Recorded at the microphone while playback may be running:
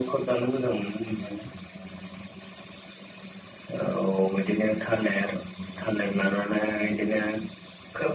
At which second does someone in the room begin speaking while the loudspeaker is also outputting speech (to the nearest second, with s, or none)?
none